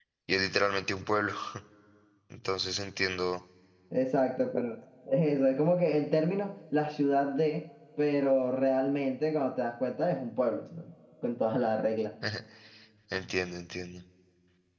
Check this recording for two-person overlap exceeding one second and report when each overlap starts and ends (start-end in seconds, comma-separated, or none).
none